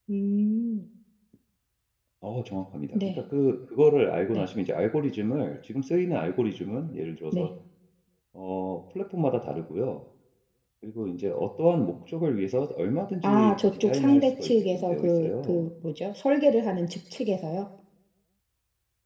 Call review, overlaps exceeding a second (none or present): present